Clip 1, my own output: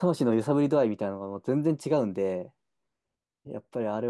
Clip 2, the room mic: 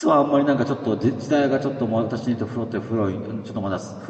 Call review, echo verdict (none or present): none